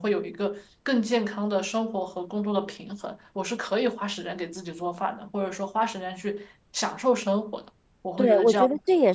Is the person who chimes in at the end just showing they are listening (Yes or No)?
No